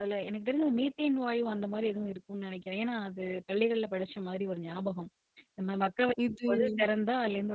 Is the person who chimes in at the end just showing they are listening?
Yes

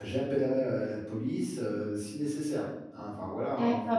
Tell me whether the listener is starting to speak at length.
Yes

